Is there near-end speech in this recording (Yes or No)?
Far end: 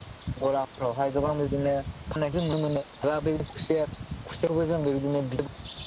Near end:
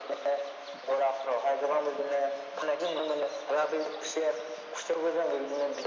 No